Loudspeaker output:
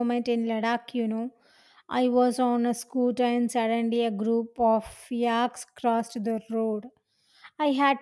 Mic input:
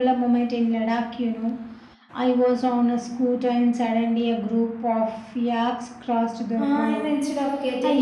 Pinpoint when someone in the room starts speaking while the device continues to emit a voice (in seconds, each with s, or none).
6.6 s